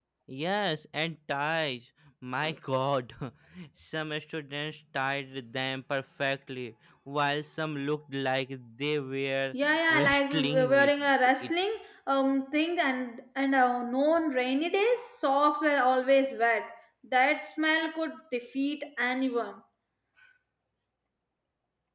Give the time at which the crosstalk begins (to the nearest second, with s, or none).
10 s